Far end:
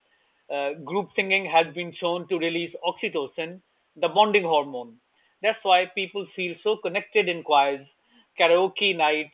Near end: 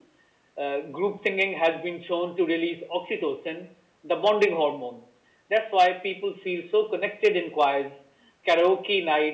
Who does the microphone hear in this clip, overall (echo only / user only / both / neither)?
echo only